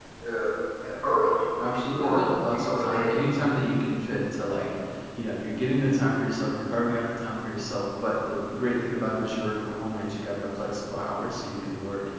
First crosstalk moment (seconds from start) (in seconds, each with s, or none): 1.6 s